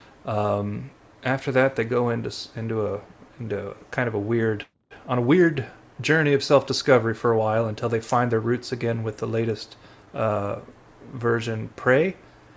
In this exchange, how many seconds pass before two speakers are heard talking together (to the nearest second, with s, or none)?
none